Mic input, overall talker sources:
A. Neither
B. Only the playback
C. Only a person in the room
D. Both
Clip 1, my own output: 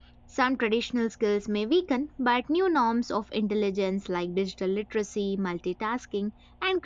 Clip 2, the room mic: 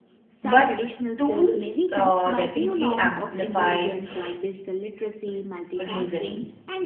D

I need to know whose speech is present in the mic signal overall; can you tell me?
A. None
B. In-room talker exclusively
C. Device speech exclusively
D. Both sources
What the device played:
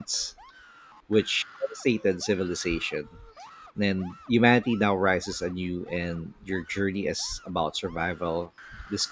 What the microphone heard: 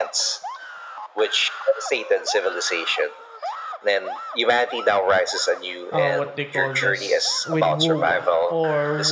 D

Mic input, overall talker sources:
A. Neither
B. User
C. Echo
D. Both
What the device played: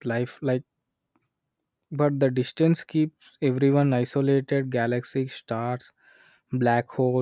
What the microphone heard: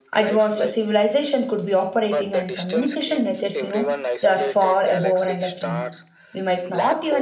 D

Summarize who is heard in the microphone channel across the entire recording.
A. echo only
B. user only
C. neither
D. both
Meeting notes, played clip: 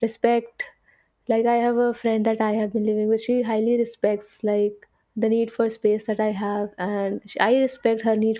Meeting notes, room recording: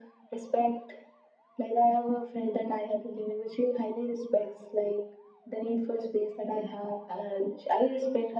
A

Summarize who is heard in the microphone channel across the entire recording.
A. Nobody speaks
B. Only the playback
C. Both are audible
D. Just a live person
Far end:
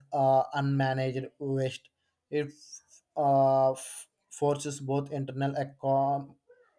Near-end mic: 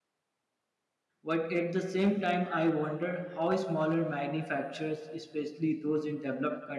D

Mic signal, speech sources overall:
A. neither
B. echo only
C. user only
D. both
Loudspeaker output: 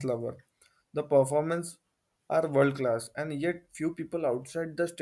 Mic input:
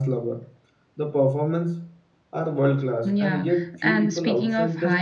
D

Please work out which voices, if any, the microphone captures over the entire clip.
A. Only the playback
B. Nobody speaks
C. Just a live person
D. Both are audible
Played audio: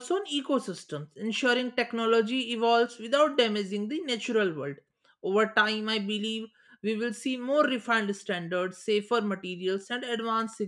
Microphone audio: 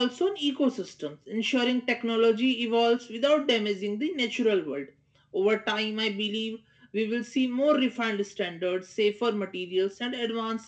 A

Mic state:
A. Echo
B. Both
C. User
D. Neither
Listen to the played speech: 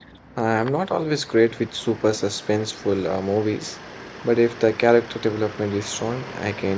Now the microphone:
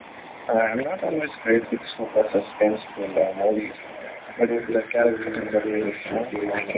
B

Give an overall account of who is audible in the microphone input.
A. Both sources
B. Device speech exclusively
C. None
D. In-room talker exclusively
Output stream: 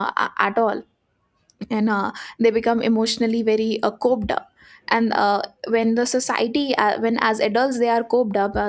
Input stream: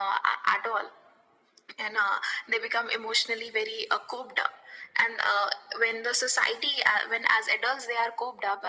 B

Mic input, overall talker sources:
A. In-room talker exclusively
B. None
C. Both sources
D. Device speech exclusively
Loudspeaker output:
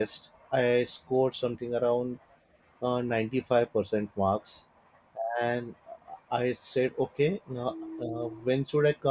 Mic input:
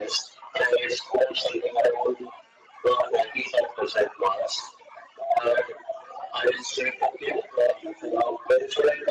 D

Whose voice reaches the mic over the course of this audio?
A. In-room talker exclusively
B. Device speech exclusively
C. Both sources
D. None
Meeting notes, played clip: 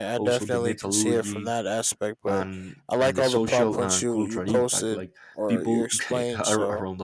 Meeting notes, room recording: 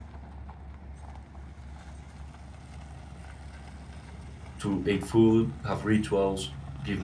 A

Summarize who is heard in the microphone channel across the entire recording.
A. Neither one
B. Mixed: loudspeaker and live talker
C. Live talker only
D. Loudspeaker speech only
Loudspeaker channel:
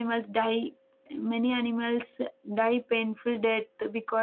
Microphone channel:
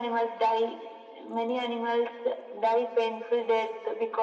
D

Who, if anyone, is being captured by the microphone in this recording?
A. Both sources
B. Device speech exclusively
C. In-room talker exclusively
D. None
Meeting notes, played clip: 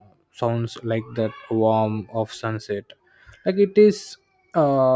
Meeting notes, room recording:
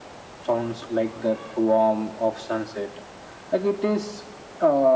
B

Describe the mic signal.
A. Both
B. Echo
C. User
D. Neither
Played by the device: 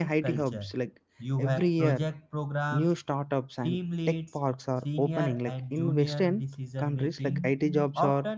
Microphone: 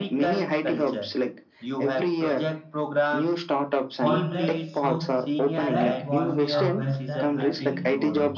A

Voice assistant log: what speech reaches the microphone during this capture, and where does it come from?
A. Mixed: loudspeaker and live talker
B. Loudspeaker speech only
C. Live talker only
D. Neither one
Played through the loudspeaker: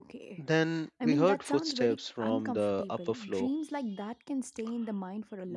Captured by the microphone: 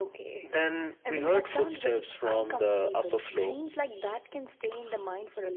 B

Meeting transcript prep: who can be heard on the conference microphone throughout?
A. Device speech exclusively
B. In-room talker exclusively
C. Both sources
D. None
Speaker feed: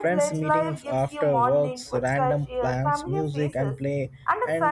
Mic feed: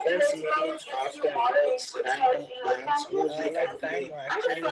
C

